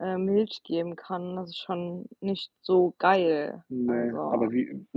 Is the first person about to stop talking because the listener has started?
Yes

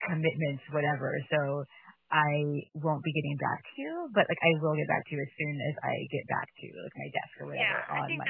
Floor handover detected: Yes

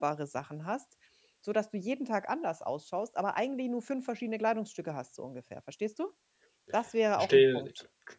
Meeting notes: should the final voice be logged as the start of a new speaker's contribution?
Yes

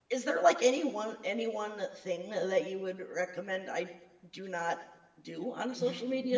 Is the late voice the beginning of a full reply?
Yes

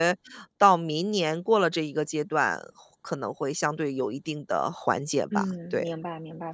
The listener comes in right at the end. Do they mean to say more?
Yes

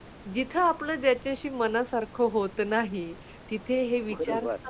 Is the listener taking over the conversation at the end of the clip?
No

